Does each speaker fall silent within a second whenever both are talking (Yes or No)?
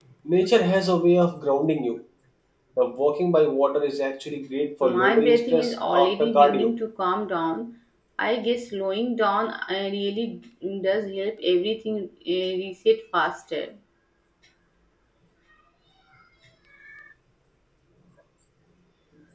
No